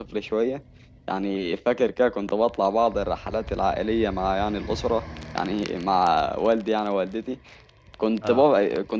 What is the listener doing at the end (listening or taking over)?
listening